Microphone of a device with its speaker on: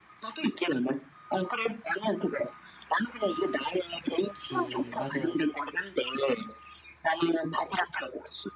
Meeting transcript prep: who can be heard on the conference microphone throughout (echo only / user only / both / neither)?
both